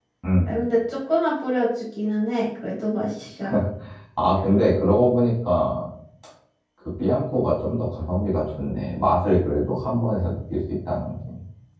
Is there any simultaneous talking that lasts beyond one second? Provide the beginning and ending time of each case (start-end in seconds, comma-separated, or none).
none